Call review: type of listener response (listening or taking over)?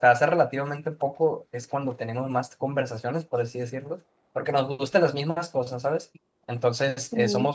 listening